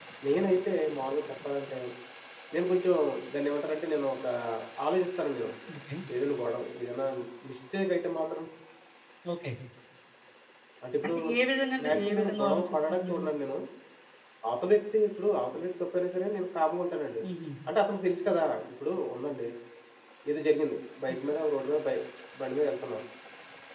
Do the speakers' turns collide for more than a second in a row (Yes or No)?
Yes